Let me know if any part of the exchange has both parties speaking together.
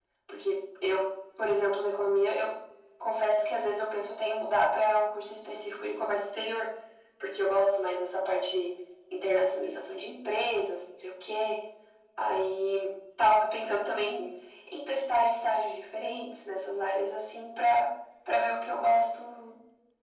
No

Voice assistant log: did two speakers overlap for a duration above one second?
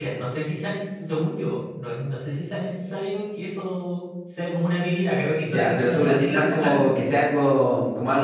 Yes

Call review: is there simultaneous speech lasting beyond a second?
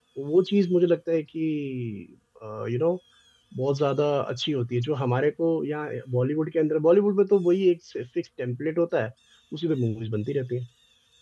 No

